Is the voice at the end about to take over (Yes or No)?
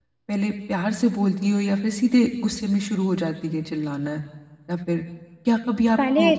No